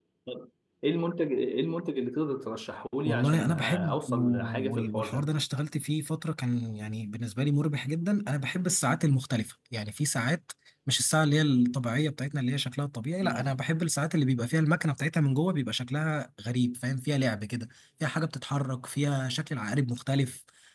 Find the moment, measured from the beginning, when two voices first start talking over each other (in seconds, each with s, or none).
3.0 s